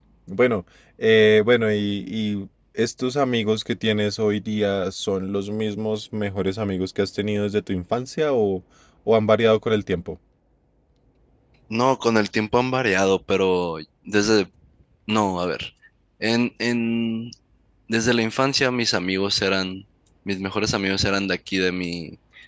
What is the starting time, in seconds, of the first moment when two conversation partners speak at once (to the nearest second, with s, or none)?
none